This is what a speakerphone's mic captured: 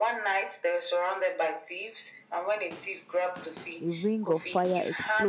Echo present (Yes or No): Yes